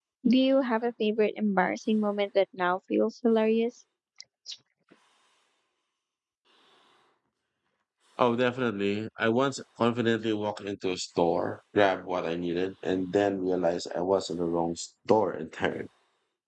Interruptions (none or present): none